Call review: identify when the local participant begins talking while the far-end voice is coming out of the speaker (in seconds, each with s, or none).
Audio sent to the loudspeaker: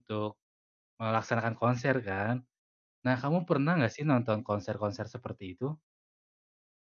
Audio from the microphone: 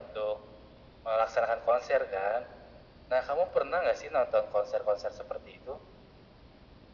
none